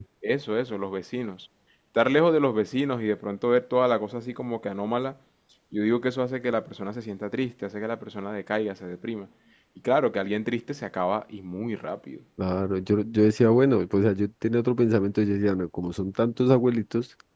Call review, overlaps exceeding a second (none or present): none